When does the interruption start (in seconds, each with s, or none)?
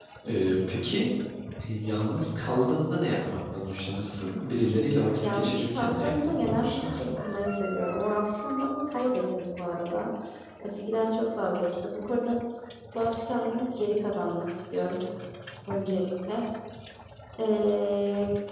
5.2 s